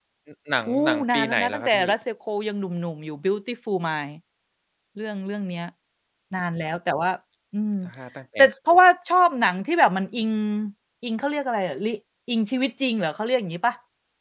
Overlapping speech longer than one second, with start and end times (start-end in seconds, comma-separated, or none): 0.7-1.9